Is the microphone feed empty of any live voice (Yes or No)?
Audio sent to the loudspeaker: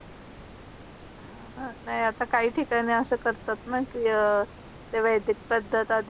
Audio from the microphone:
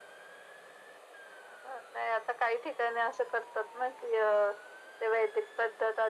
Yes